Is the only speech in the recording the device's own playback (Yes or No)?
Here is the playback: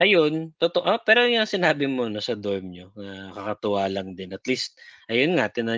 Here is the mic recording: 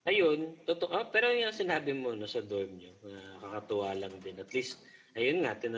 Yes